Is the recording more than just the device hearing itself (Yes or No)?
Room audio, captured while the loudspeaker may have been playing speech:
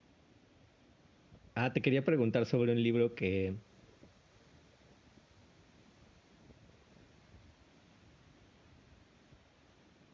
Yes